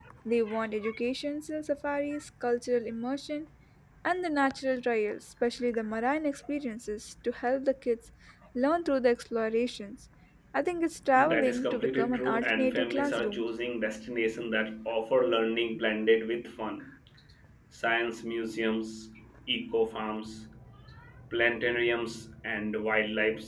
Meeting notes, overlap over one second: present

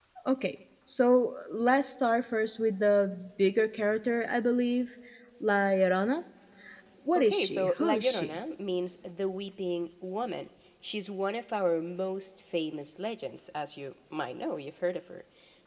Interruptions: present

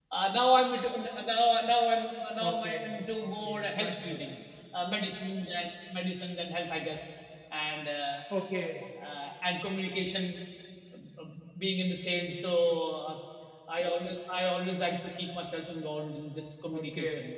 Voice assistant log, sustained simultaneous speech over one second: present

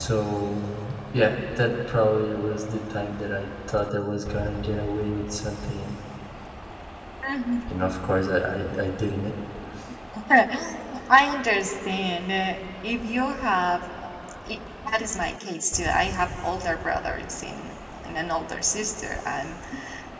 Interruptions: none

